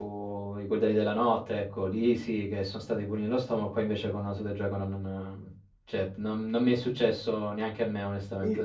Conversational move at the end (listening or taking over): taking over